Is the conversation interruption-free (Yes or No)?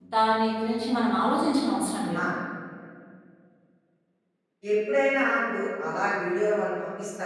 Yes